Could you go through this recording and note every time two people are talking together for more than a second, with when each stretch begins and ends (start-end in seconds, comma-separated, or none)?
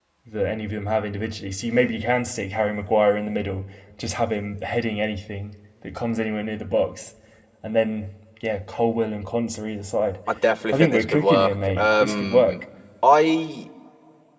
10.7-12.6